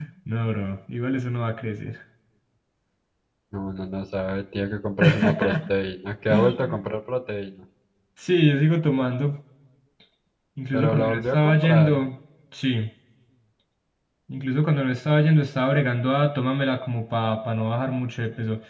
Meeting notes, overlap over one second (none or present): present